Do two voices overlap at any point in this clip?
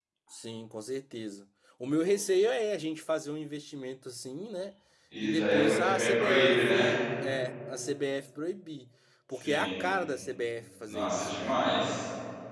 Yes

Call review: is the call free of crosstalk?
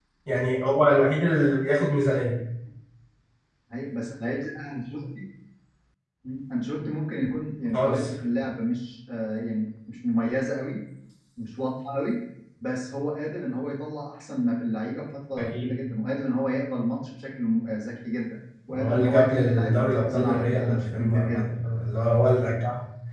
No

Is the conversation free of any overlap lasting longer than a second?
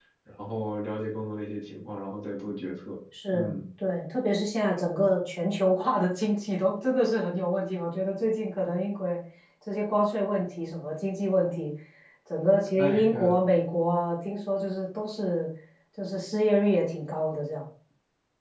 Yes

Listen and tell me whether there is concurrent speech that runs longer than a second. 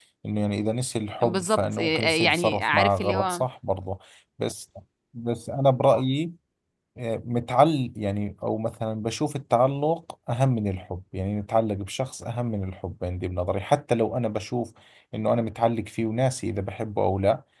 Yes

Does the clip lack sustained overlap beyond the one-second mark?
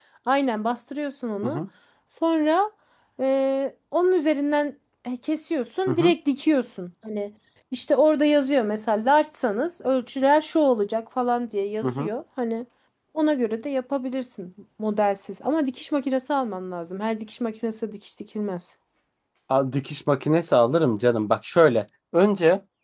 Yes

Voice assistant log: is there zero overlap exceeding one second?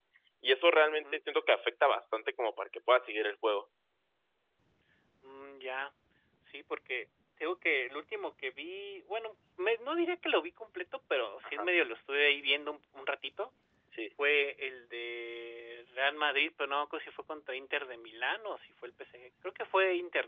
Yes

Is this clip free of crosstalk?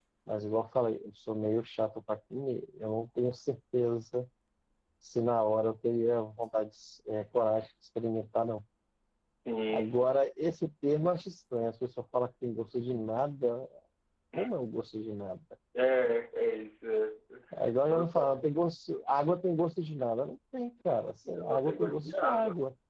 No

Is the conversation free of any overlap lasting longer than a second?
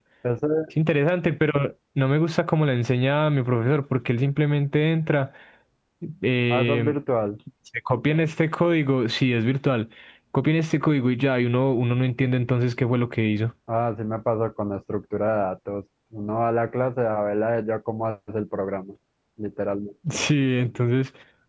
Yes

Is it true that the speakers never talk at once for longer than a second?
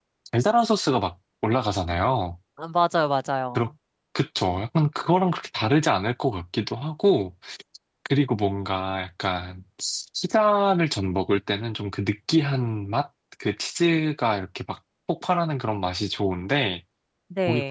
Yes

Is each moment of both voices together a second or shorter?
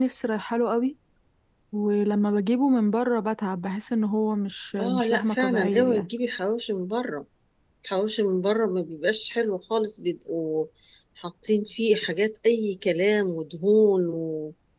No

